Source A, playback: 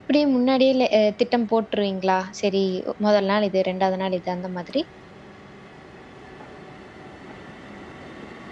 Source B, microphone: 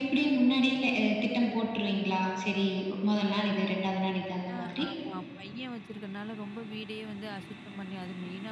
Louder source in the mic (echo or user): echo